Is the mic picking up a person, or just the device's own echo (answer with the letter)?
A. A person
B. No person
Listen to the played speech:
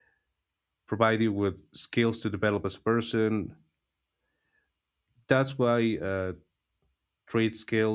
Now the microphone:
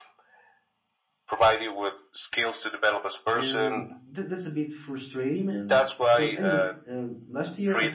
A